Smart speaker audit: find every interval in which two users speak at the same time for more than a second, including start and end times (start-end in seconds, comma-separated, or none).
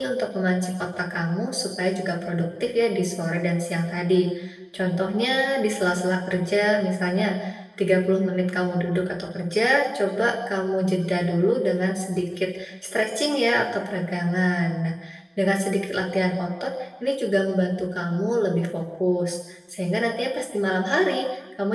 none